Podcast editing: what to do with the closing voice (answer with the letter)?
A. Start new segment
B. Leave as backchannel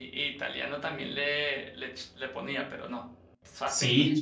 A